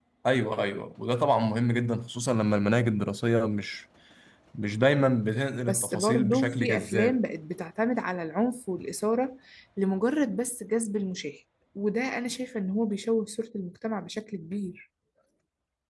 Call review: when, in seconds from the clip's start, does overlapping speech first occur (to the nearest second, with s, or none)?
6 s